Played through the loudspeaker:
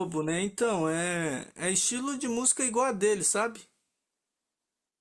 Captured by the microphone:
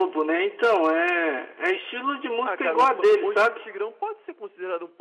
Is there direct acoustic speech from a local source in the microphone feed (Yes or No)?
Yes